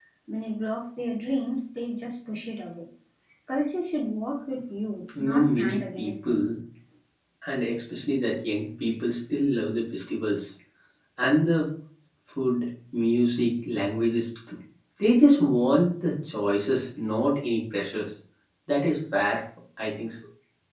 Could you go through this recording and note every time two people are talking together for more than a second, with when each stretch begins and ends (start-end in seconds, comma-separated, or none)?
5.2-6.5